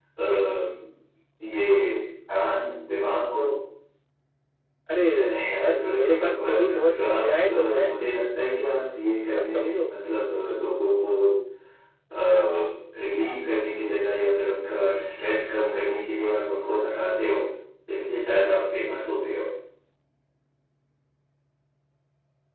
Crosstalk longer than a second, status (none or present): present